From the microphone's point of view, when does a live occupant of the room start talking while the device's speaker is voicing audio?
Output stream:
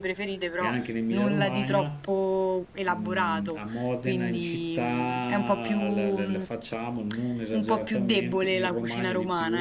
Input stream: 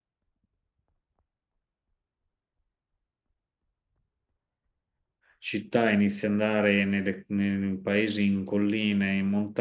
5.4 s

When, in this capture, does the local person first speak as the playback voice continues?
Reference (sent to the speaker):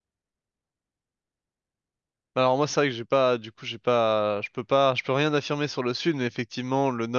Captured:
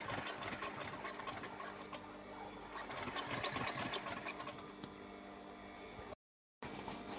none

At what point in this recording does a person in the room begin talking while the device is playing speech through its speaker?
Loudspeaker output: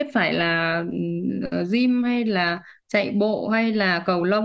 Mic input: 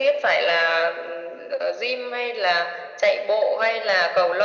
none

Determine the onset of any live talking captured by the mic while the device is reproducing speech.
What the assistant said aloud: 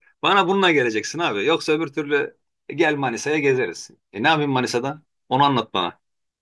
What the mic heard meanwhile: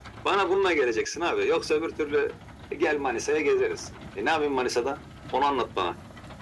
none

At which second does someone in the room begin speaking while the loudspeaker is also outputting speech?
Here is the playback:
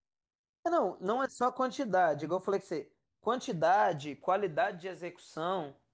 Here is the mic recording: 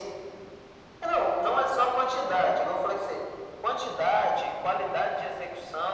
none

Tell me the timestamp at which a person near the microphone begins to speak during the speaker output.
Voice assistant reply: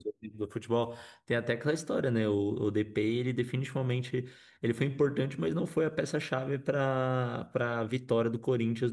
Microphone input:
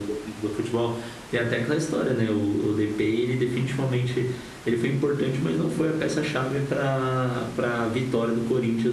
none

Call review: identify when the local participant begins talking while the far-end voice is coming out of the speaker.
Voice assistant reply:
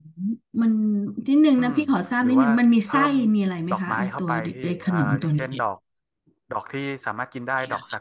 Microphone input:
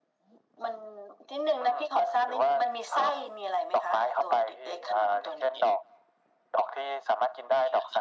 none

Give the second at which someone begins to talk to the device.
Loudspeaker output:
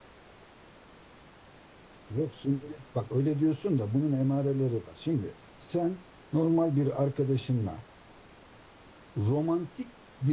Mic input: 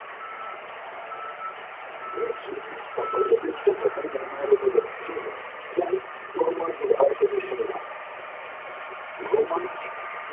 none

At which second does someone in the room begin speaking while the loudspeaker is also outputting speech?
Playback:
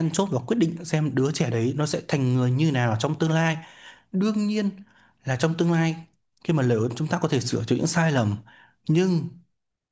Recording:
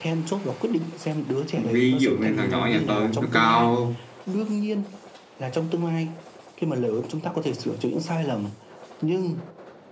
1.6 s

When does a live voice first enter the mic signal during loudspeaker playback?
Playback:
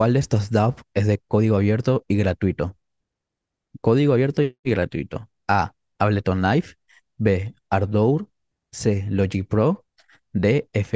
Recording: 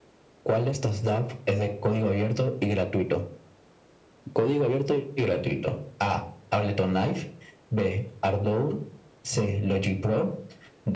none

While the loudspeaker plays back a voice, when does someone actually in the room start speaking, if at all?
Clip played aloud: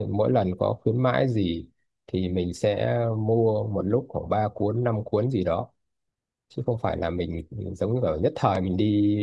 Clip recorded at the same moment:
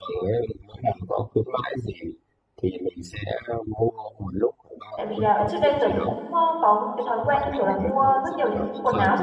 5.0 s

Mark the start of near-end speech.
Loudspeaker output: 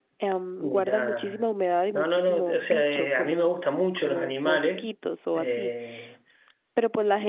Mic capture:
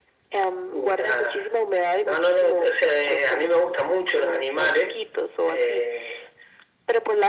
none

